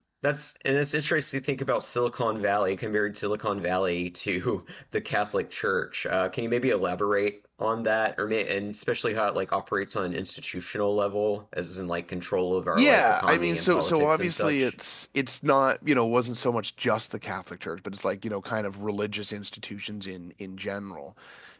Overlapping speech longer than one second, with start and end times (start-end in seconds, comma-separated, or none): 12.7-14.7